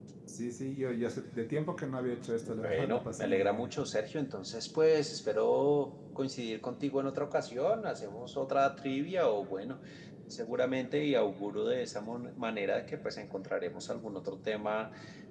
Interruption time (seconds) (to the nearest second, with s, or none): 2 s